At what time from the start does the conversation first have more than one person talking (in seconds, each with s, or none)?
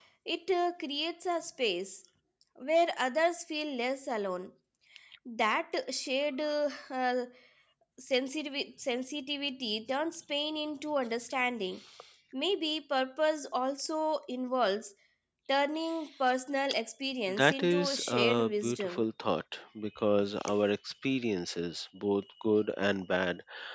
17.3 s